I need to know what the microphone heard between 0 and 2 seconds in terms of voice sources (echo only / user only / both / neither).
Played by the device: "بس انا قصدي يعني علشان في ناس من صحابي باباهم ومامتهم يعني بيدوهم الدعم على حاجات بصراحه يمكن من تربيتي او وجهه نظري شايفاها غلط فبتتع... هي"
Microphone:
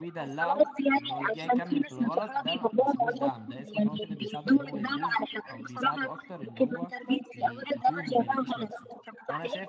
both